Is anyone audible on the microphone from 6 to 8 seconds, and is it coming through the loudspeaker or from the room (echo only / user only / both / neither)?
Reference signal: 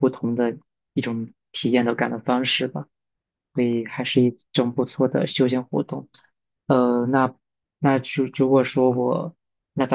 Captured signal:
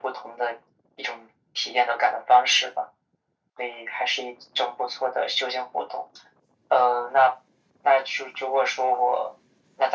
echo only